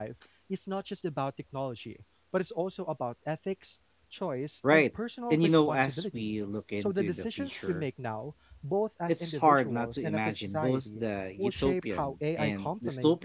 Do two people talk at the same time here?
Yes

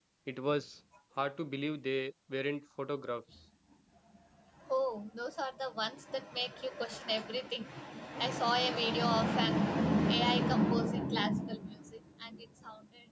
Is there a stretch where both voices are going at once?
No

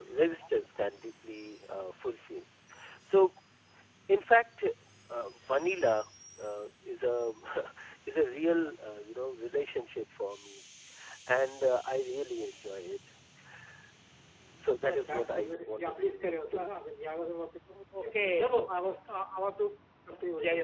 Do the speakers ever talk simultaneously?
Yes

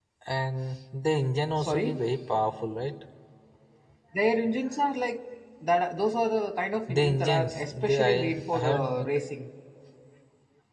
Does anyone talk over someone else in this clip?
Yes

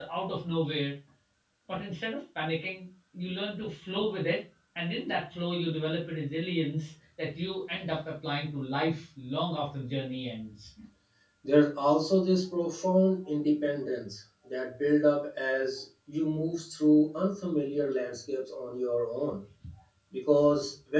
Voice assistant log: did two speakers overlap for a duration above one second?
No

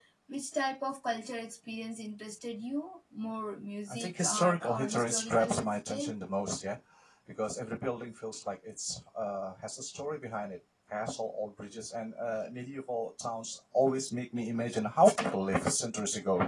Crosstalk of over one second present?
Yes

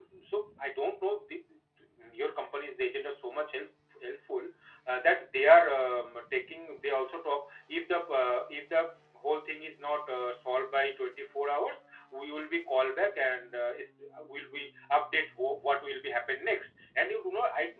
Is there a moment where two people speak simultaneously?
No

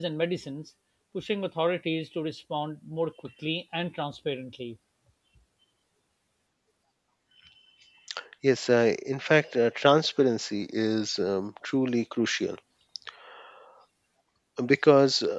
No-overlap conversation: Yes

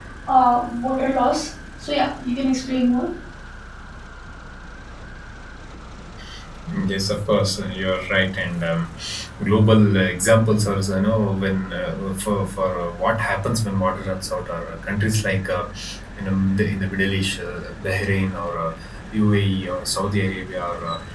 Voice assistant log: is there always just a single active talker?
Yes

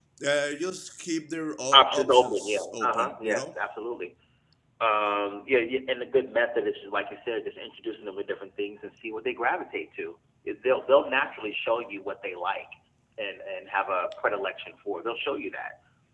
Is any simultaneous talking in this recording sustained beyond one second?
Yes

